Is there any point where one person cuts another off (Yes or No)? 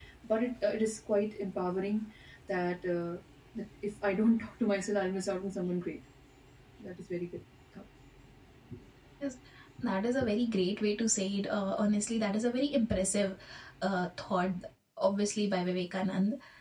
No